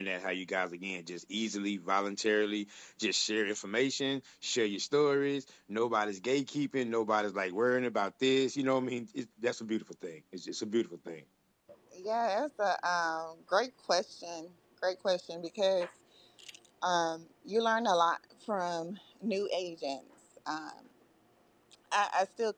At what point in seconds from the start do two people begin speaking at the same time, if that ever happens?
none

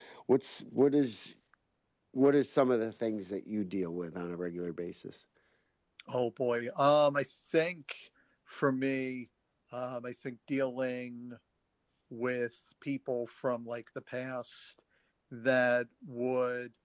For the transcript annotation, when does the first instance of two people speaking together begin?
none

